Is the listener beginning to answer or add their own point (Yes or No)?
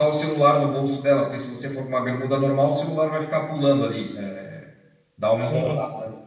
No